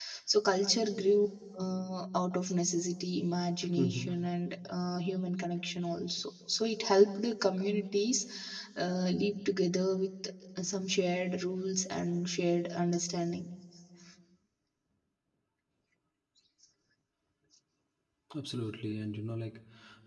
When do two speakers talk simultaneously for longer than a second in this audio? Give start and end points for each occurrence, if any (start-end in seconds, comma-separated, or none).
none